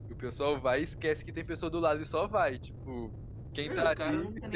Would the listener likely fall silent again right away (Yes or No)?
No